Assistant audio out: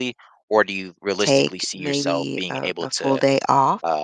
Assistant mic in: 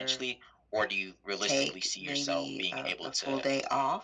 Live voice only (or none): none